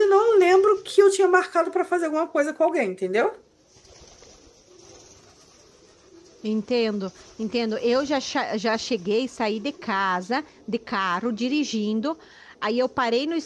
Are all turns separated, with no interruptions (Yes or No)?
Yes